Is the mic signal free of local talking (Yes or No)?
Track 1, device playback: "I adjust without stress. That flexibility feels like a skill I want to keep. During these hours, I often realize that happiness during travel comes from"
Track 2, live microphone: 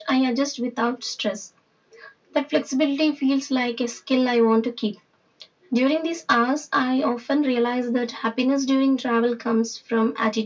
Yes